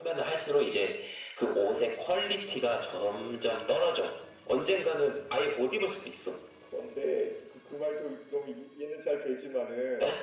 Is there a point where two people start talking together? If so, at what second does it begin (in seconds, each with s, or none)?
none